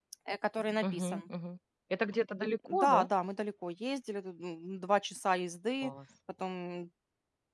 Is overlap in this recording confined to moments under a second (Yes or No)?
Yes